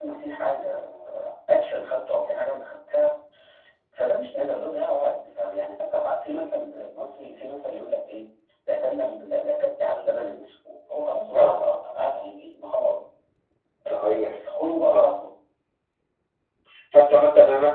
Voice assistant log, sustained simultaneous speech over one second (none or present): none